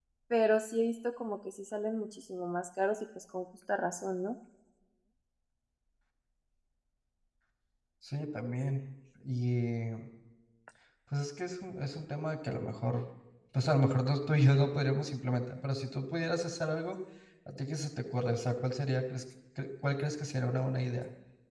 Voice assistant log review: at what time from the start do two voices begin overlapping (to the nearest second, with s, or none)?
none